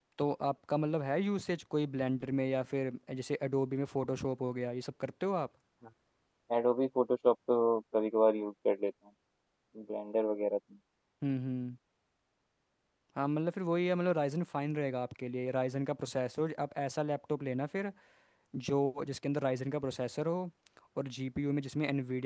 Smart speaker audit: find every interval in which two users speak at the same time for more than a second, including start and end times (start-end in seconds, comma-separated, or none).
none